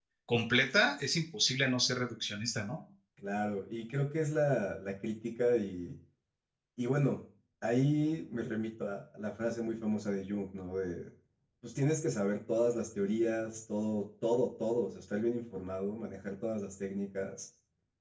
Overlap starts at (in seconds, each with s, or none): none